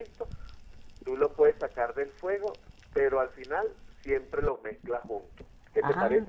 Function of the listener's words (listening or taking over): taking over